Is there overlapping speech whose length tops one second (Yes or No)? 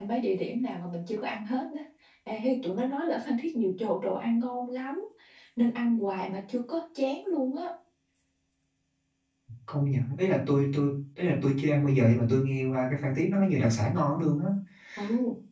No